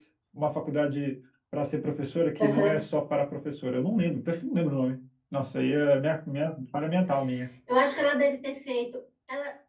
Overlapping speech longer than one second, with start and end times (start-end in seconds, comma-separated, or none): none